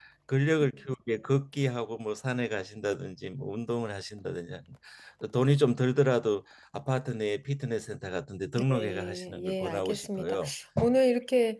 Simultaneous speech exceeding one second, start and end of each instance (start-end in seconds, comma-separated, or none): 8.7-10.4